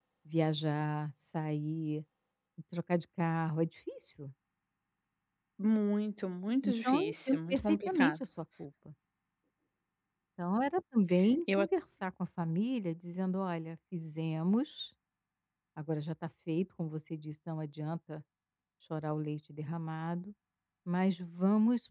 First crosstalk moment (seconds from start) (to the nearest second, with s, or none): 7 s